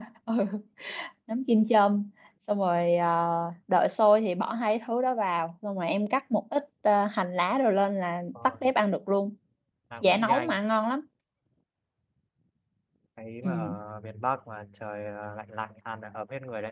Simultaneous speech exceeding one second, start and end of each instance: none

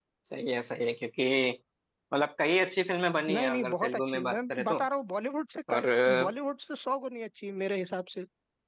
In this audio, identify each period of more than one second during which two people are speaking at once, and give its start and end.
3.3-4.8

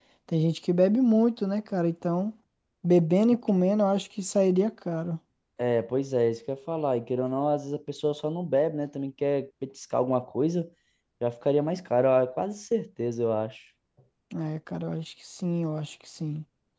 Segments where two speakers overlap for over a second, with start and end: none

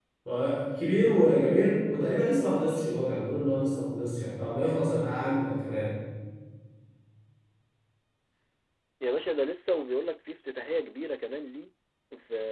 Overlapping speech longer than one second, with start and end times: none

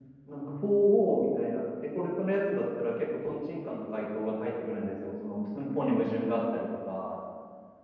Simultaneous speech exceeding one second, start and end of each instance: none

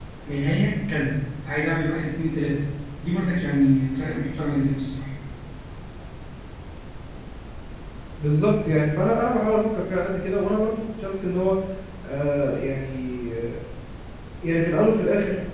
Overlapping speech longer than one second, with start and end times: none

